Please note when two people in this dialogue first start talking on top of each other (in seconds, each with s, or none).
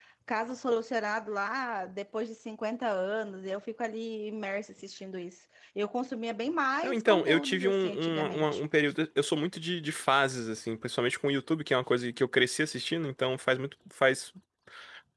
6.8 s